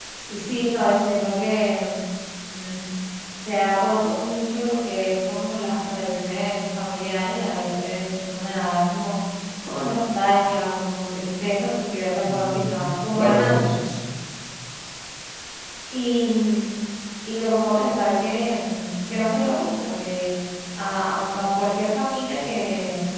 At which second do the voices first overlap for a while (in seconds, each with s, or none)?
12.2 s